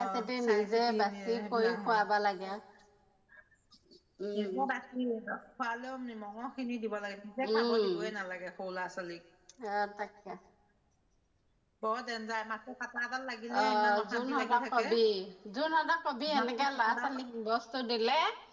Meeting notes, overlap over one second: present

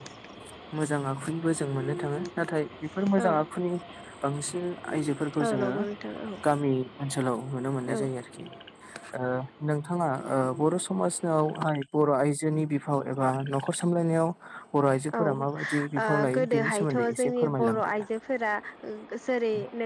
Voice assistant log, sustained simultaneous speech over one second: present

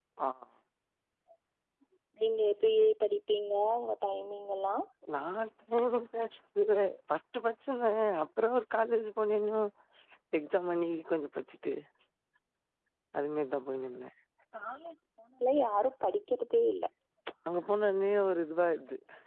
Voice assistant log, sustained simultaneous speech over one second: none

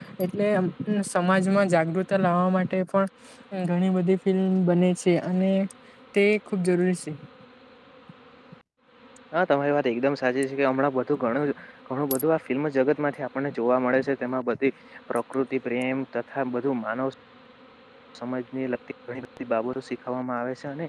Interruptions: none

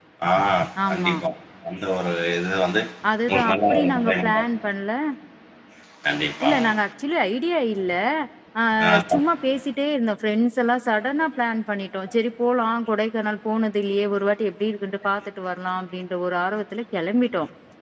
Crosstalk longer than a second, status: present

